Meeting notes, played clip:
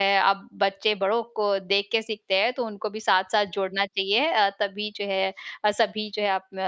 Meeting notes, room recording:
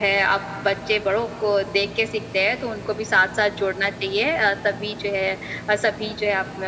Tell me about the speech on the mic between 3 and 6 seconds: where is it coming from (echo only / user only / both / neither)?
echo only